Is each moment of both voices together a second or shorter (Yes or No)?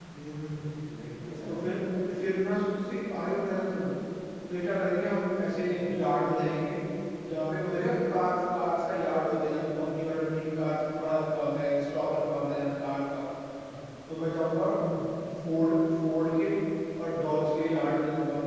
Yes